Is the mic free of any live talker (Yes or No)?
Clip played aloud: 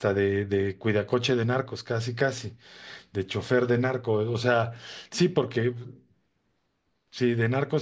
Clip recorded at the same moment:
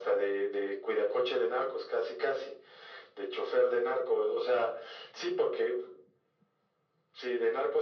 Yes